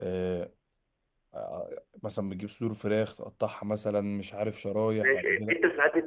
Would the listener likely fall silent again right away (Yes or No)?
No